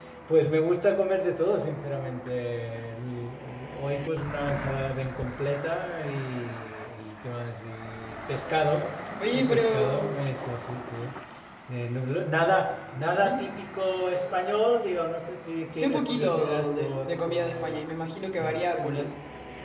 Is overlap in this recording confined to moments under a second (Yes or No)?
No